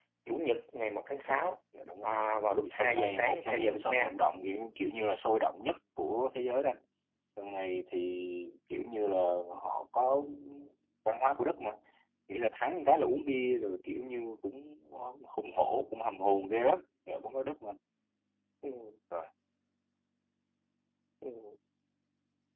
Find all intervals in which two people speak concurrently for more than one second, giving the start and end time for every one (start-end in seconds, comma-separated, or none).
2.6-4.1